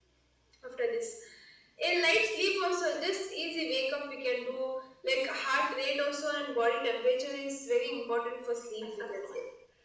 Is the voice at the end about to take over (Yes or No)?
Yes